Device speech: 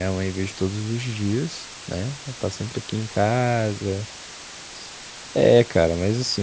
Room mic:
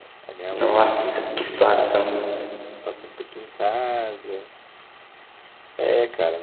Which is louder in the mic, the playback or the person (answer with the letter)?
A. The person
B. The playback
A